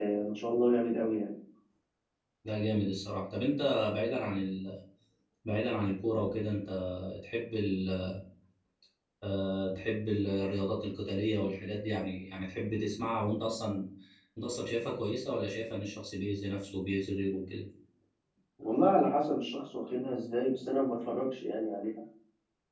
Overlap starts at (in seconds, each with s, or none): none